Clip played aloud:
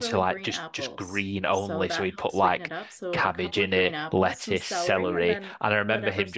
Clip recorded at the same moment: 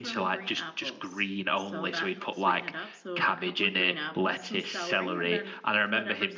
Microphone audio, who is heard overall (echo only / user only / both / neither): echo only